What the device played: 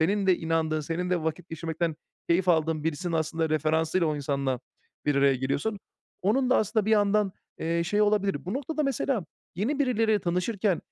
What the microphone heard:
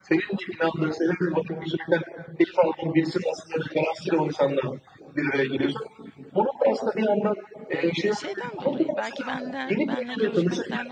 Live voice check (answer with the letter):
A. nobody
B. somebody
B